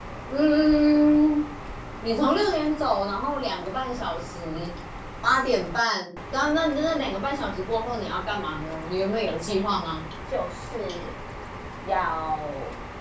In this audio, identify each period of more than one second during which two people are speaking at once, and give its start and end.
none

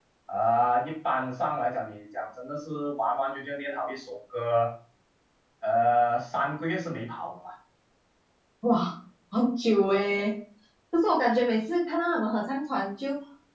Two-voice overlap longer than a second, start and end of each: none

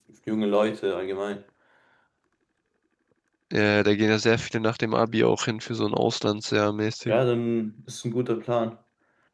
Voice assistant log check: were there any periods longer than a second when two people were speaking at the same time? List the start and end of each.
none

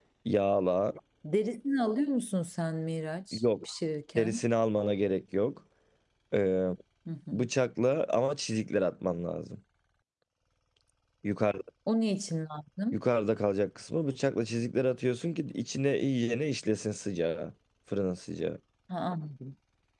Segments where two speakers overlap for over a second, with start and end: none

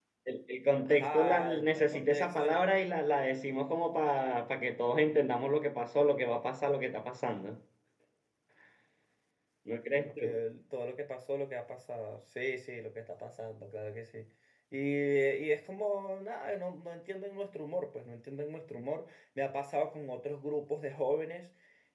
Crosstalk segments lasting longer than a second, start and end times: 0.8-2.4

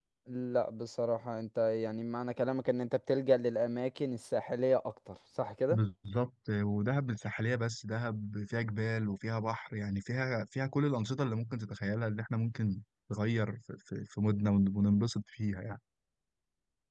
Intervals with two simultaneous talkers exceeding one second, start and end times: none

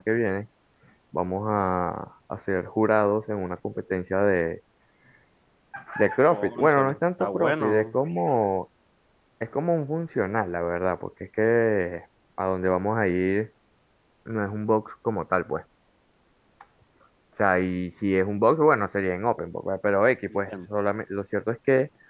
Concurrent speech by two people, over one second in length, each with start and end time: 6.3-8.0

